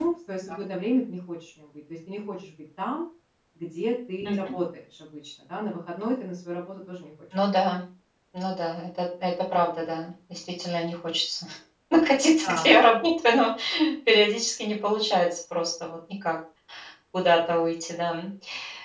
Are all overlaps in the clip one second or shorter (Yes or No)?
Yes